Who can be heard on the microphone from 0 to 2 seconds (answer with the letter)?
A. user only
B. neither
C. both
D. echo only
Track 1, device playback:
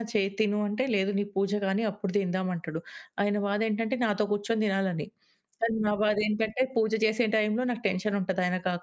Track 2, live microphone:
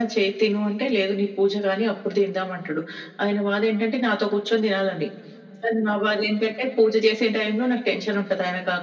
D